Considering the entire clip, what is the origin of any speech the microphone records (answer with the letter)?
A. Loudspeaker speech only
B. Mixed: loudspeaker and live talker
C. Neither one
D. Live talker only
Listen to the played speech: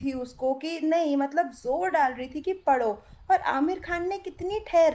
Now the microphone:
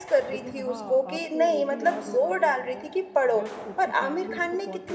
B